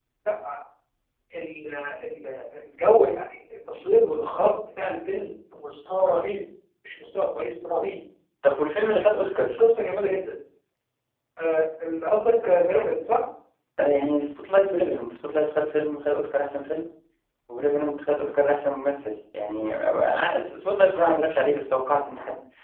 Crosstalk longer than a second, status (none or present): none